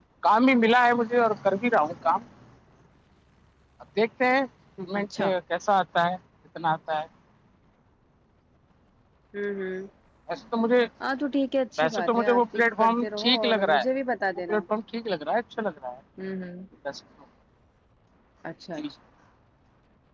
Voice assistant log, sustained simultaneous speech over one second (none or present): present